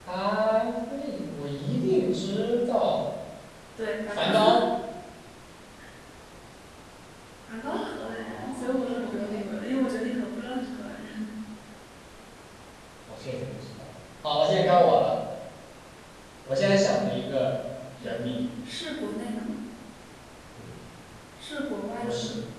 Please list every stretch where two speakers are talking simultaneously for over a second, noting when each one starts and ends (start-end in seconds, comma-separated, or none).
8.0-9.4